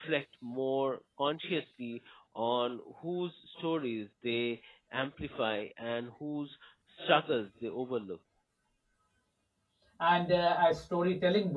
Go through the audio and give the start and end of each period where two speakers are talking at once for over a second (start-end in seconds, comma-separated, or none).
none